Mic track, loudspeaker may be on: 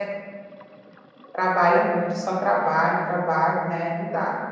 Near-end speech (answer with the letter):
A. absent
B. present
B